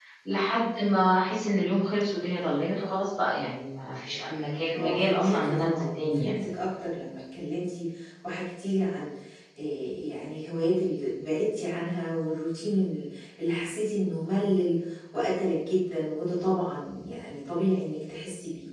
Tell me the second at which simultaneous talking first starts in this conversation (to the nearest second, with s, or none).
5 s